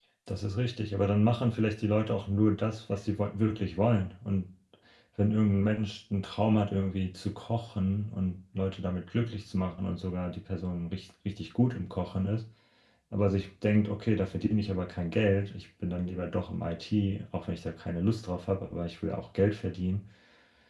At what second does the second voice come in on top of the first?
none

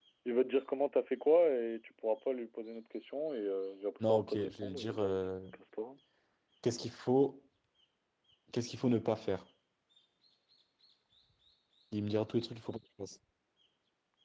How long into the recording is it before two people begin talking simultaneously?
4.0 s

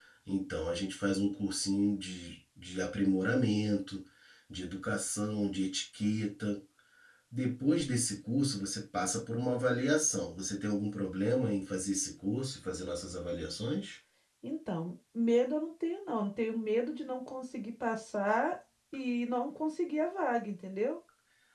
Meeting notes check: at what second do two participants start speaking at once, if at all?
none

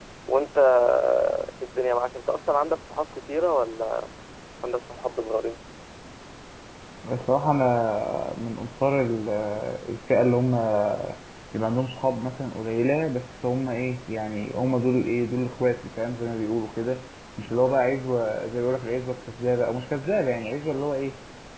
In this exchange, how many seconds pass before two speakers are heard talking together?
none

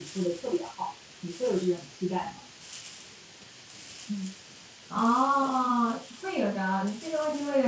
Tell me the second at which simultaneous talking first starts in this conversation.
none

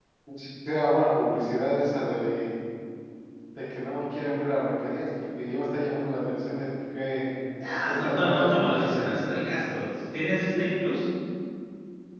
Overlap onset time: 7.9 s

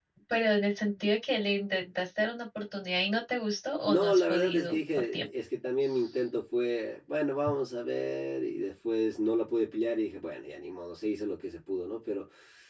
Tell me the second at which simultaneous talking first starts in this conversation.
3.9 s

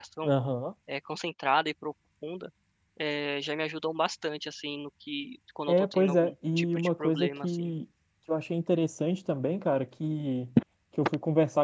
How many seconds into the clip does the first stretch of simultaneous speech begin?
5.7 s

